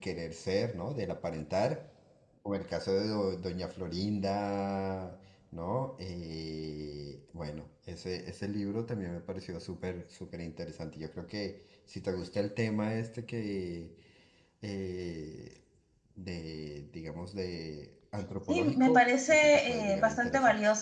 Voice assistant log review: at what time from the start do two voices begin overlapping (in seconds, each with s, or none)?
18.5 s